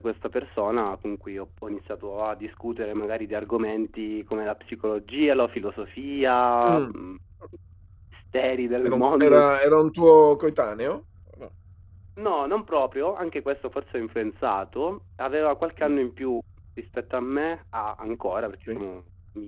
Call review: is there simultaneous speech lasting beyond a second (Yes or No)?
No